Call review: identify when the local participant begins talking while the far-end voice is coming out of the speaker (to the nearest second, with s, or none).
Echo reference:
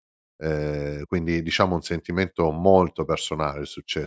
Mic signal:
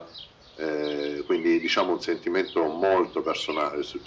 none